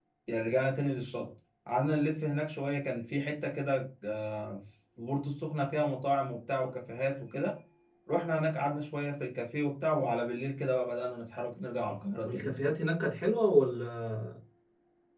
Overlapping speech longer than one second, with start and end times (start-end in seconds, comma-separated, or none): none